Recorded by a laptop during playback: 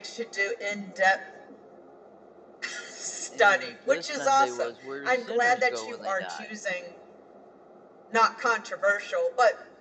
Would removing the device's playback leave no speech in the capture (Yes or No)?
No